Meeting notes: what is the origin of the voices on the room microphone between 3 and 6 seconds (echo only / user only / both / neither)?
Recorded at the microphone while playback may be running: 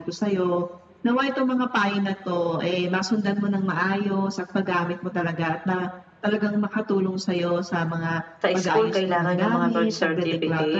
echo only